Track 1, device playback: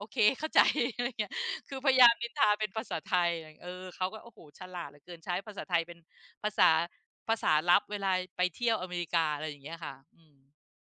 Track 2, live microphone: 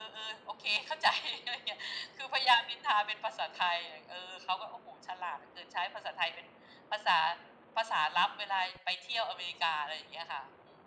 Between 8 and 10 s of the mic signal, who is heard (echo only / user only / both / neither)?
echo only